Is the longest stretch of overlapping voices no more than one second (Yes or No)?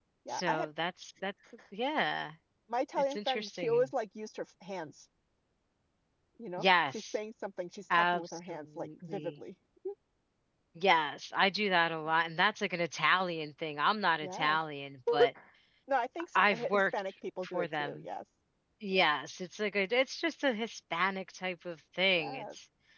No